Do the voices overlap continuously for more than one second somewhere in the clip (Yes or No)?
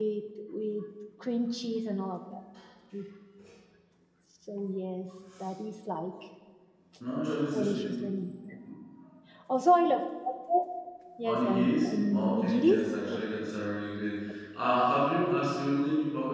Yes